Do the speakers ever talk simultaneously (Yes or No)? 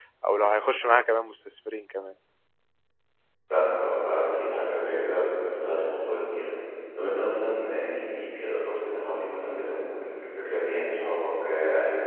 No